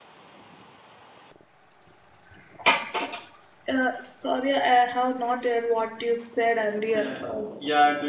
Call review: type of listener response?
taking over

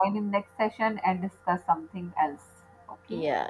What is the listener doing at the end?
taking over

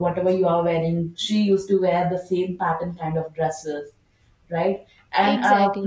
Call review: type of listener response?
listening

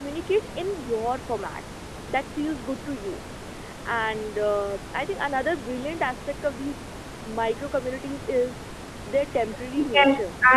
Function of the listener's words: taking over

